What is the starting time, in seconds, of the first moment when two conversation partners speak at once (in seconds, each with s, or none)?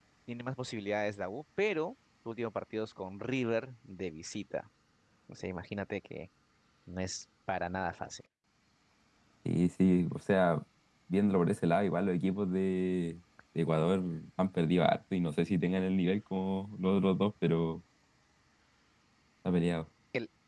none